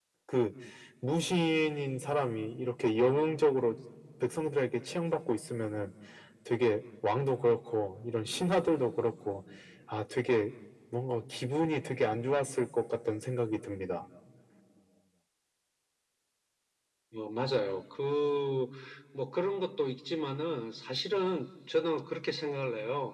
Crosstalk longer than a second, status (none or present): none